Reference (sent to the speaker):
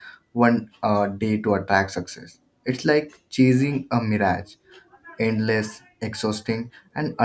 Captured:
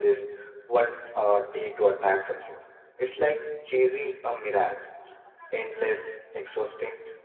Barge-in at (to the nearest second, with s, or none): none